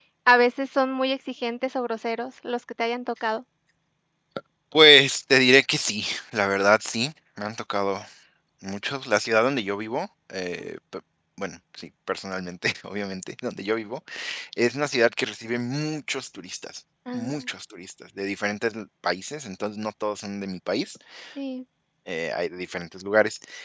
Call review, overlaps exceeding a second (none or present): none